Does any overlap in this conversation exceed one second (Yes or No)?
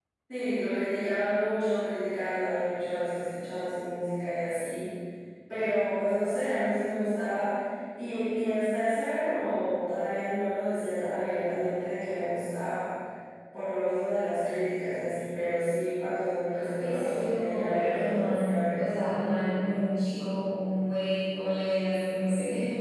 Yes